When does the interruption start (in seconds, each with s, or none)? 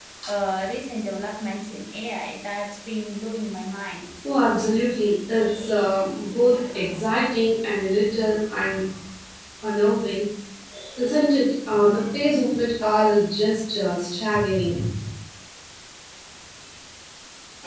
none